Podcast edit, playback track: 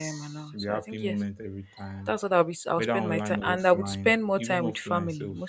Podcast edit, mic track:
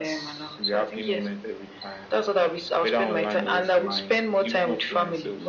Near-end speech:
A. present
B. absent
B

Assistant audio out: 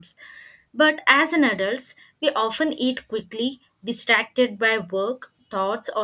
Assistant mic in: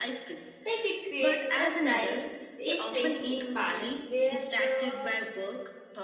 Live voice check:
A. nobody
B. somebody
B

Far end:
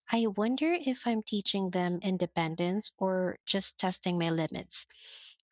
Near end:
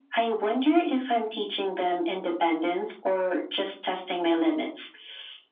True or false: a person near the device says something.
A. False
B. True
A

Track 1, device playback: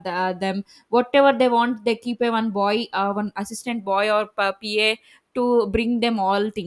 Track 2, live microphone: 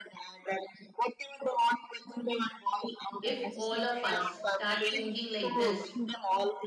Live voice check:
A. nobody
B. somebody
B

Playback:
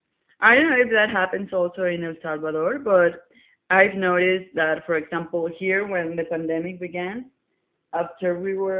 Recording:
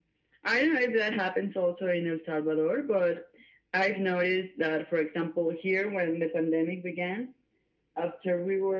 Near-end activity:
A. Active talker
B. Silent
B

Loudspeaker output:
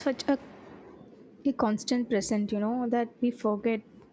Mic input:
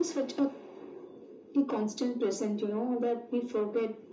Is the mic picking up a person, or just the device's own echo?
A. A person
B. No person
B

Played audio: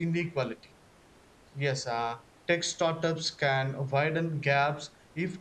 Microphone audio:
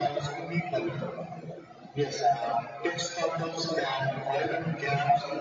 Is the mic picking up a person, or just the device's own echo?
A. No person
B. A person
A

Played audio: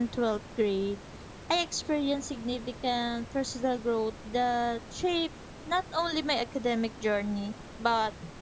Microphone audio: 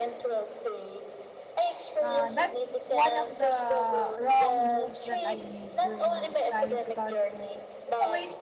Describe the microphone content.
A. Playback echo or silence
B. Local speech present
B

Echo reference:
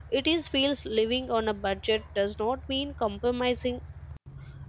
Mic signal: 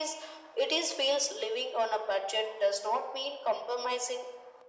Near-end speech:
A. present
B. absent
B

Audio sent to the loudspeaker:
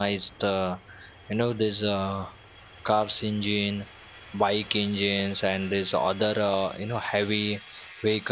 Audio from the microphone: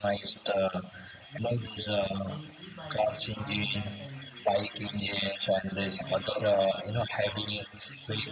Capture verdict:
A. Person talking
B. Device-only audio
A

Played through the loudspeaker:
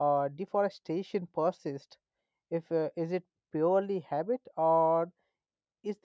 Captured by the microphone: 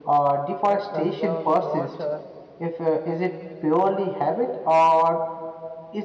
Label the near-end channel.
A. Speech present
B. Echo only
A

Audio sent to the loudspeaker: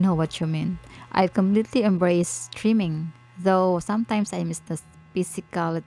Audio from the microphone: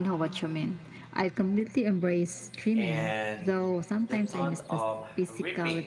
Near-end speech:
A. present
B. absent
A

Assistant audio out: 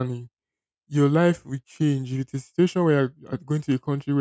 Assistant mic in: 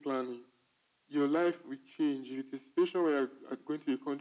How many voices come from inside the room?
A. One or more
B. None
B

